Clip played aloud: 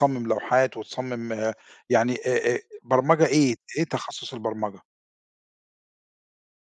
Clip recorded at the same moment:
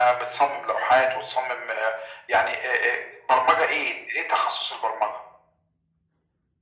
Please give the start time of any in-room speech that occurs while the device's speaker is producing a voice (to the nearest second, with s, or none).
none